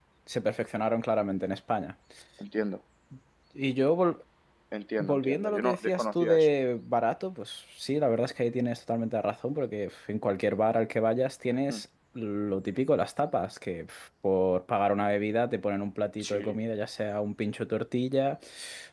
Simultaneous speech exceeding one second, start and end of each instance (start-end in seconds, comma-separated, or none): 5.0-6.4